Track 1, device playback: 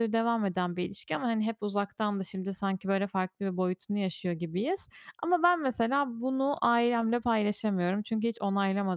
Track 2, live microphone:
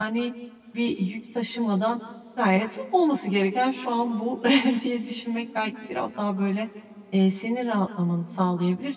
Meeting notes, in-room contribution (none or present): present